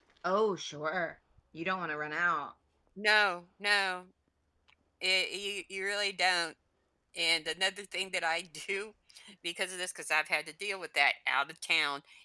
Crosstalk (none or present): none